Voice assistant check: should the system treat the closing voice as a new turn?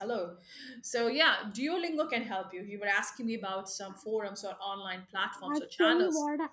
Yes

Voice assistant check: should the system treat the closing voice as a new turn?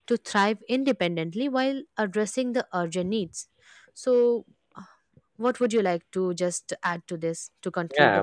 Yes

